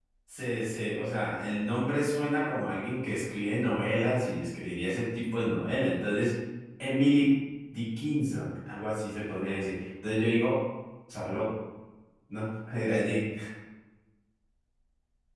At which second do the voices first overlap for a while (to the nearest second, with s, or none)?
none